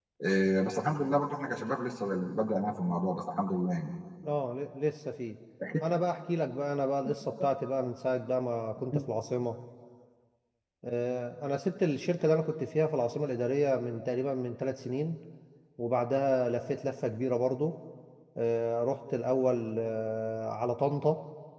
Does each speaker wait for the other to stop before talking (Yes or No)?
Yes